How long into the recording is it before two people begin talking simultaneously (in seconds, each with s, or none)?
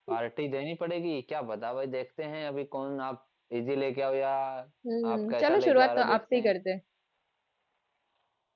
5.1 s